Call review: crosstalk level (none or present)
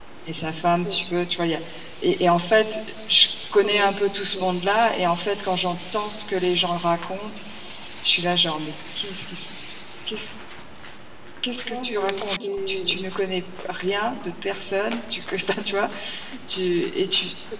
present